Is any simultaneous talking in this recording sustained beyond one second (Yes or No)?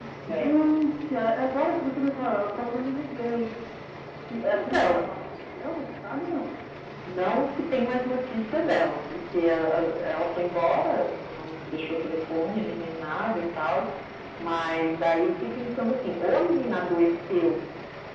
No